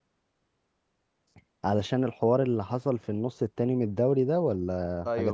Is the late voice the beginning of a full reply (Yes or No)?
Yes